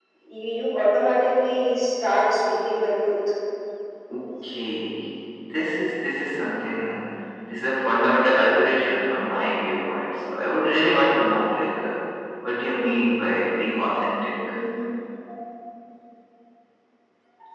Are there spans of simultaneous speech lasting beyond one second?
No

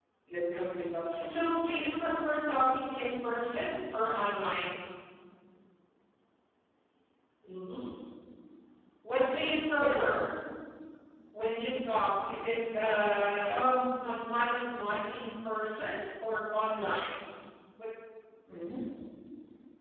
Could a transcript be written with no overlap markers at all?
No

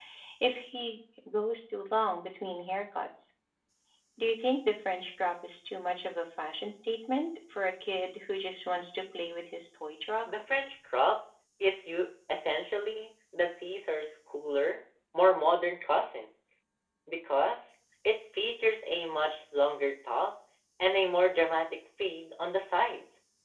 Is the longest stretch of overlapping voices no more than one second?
Yes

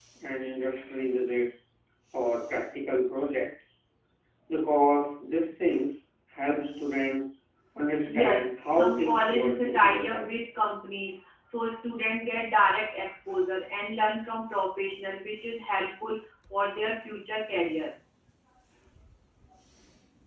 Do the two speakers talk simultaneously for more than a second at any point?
Yes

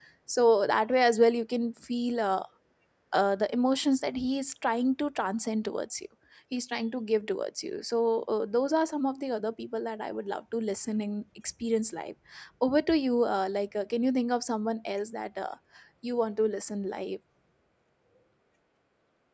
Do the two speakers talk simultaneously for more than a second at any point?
No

